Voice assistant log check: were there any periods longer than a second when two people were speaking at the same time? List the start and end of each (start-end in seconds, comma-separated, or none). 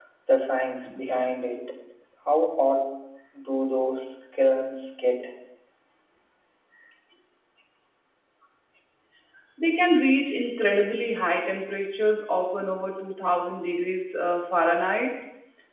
none